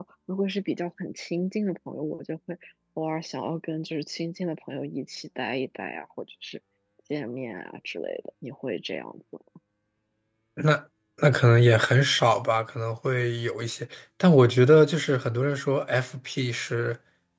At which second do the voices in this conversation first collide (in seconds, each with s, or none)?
none